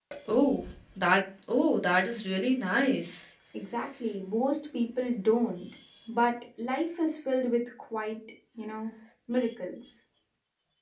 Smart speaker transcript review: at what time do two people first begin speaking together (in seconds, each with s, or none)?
none